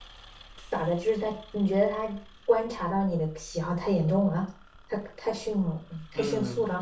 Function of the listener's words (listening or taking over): taking over